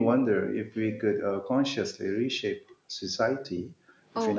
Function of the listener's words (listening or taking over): taking over